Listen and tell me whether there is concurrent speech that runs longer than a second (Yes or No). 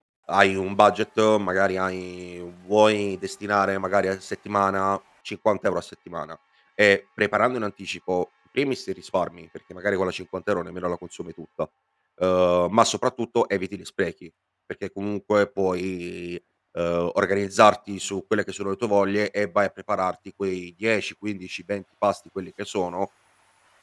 No